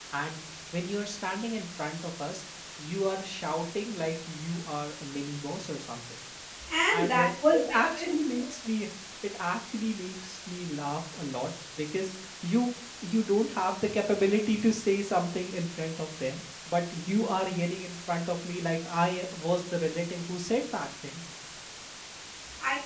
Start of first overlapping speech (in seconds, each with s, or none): 6.9 s